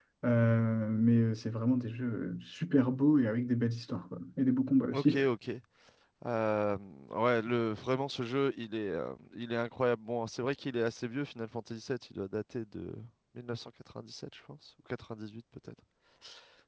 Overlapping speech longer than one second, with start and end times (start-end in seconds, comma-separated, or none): none